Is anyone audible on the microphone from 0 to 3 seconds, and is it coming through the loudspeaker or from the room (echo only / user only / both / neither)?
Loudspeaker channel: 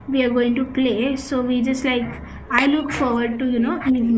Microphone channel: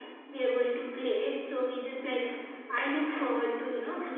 echo only